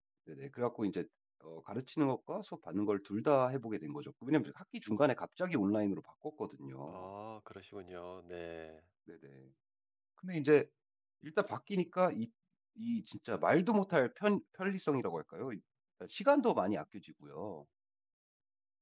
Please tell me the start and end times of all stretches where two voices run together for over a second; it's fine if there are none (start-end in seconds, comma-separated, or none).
none